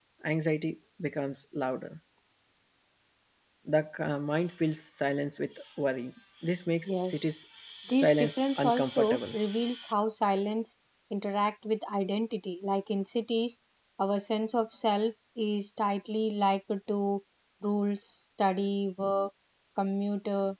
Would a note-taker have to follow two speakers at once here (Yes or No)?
Yes